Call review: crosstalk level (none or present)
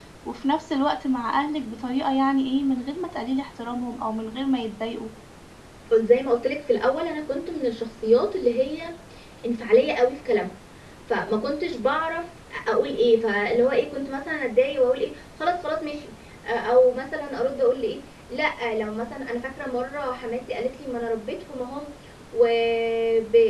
none